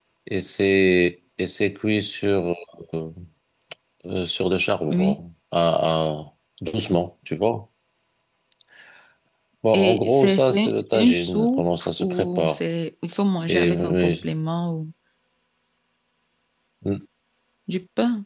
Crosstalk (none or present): present